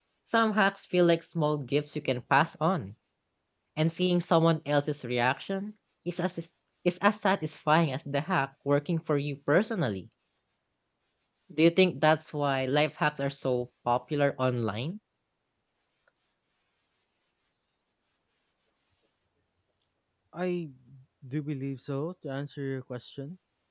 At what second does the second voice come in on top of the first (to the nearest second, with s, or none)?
none